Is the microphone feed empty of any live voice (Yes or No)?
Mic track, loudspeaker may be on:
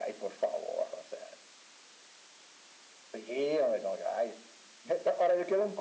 Yes